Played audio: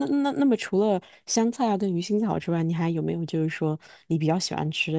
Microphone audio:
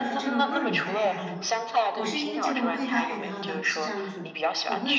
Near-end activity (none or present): present